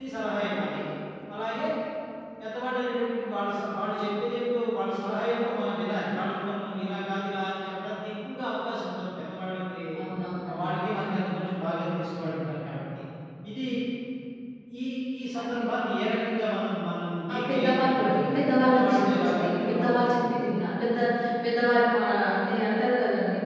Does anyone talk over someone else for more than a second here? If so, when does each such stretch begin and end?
17.3-20.3

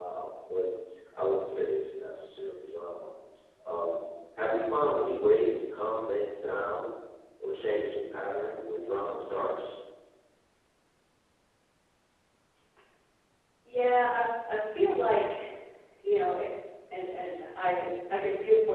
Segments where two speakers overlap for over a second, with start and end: none

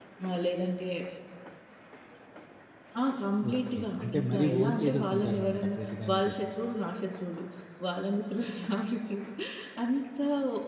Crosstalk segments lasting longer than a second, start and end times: 3.5-6.4

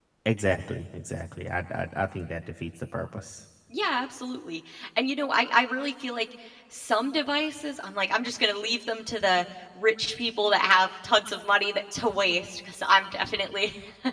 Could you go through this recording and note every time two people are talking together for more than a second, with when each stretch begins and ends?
none

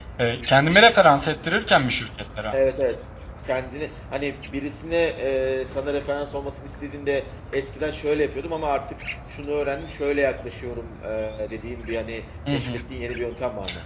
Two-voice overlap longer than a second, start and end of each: none

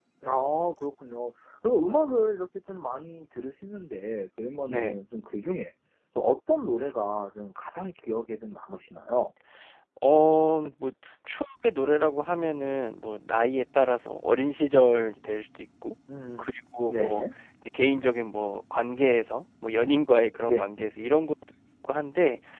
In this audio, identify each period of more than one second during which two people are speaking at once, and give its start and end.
none

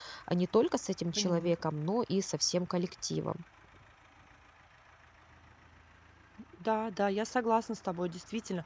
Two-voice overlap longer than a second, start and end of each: none

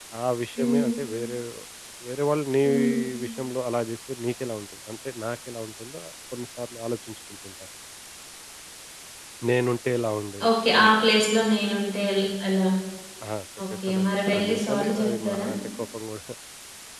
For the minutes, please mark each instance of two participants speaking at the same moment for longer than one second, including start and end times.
13.9-15.5

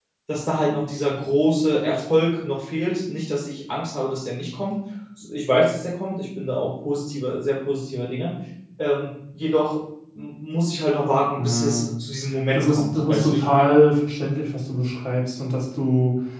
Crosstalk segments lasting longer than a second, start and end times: 12.5-13.8

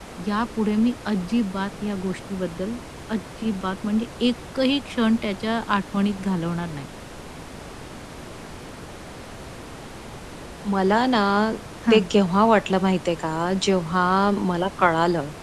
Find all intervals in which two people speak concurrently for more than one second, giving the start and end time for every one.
none

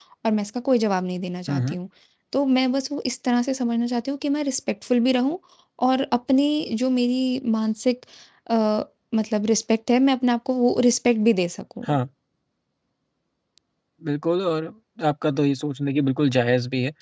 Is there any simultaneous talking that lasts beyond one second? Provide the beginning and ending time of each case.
none

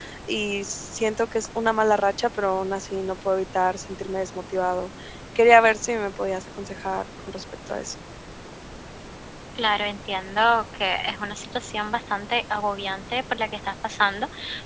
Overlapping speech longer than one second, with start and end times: none

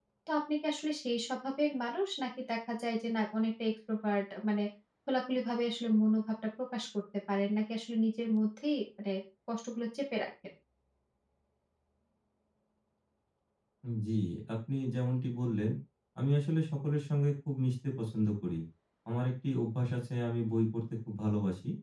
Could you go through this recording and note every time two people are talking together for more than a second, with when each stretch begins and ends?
none

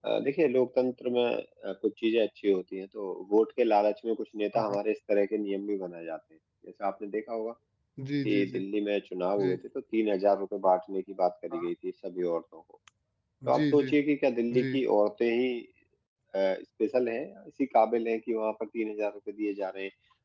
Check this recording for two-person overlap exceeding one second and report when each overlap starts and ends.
none

